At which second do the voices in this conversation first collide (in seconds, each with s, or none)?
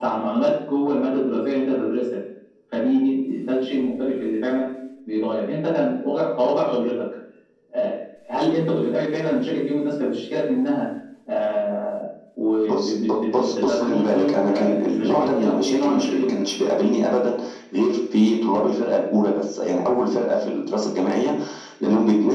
12.6 s